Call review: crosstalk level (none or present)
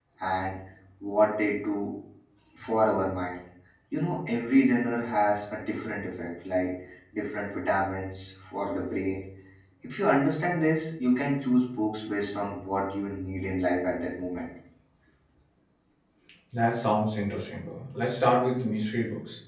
none